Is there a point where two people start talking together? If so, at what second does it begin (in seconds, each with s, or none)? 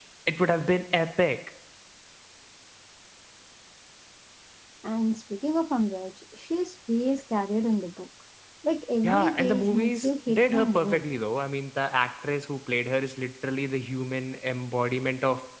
9.0 s